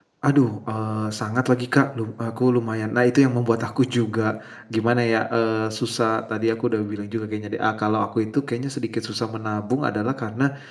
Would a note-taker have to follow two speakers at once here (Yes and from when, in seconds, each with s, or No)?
No